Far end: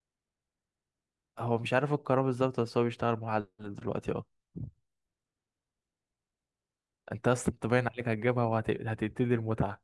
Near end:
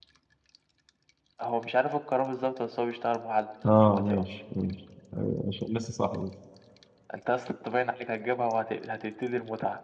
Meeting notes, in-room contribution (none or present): present